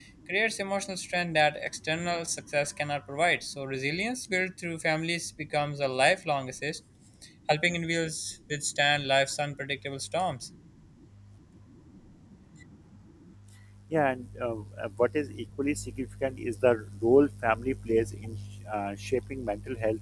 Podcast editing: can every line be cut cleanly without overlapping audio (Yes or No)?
Yes